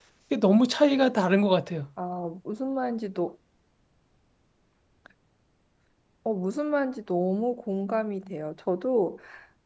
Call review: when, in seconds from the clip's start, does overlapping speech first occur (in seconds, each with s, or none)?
none